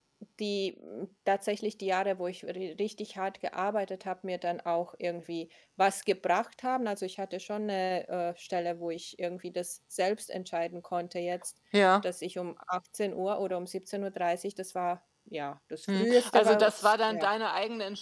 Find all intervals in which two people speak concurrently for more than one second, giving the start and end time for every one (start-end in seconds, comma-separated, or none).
15.9-17.3